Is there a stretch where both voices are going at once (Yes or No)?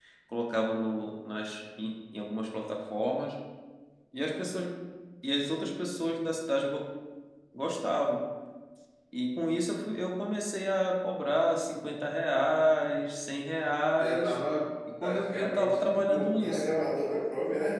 Yes